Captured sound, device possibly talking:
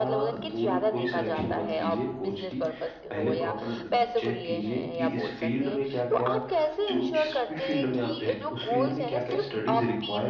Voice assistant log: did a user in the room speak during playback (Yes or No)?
Yes